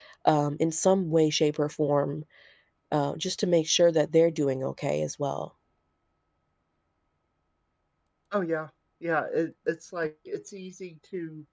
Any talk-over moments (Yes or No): No